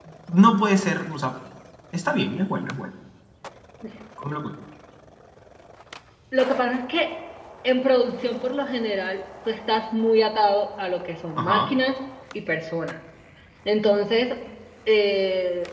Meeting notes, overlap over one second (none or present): none